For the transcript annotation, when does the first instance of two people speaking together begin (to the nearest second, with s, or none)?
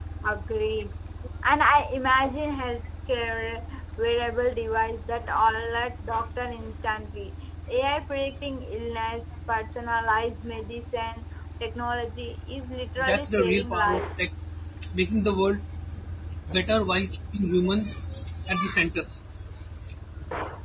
13 s